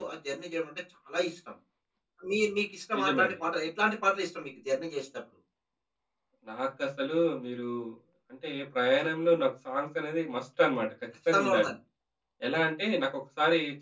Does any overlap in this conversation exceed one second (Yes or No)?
No